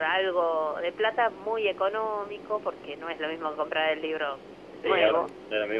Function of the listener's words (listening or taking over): taking over